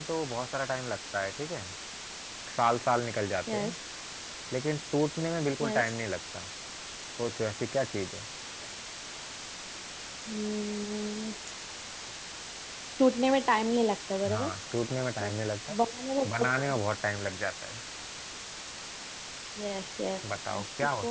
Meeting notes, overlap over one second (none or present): none